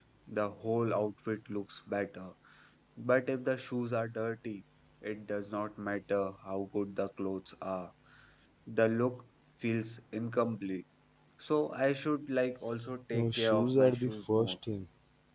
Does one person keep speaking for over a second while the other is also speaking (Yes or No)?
Yes